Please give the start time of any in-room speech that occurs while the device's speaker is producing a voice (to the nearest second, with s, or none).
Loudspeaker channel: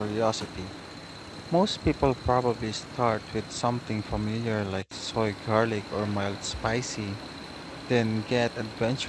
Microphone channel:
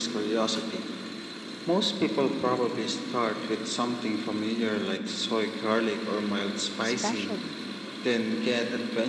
7 s